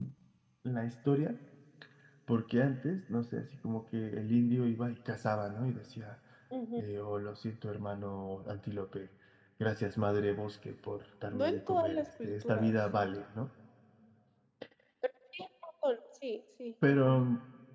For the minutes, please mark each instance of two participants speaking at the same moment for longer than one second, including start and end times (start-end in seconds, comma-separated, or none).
11.3-12.8